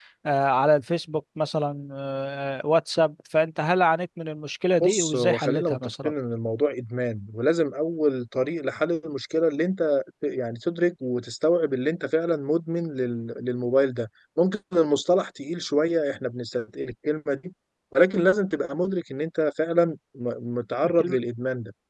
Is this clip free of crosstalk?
No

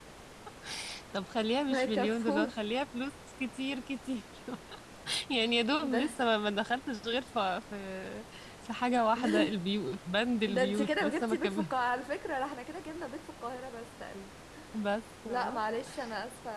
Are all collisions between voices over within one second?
No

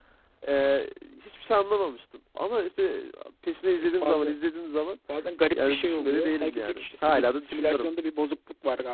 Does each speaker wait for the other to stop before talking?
No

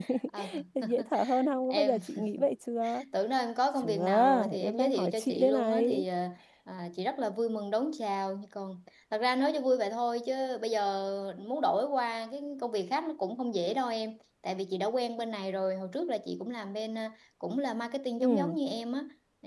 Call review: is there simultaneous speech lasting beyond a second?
Yes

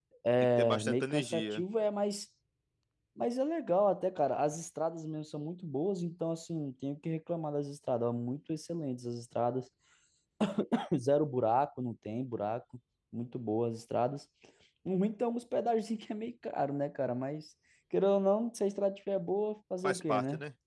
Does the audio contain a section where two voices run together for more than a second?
Yes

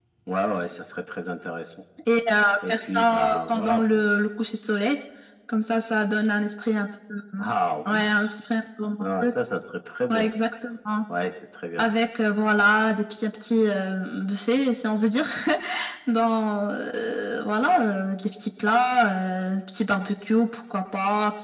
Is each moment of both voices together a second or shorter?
No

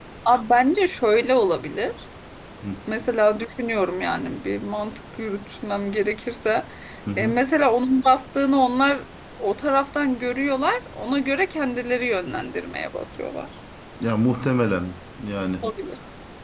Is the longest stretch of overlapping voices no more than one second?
Yes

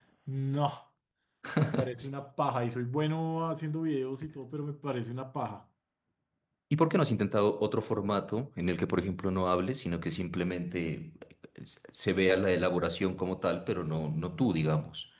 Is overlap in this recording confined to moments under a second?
Yes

